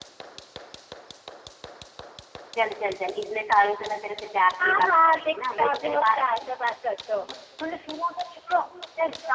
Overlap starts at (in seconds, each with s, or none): 4.6 s